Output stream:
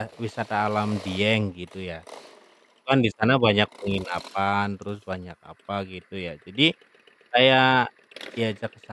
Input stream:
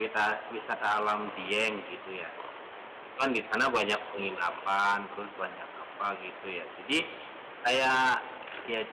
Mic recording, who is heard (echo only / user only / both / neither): echo only